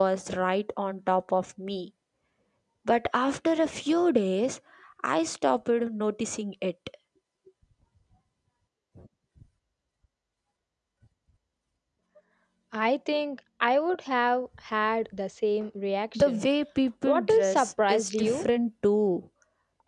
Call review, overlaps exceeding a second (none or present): present